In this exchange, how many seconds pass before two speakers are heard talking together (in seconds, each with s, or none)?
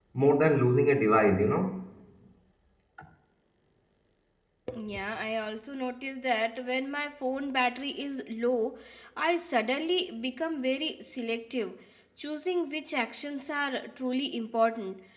none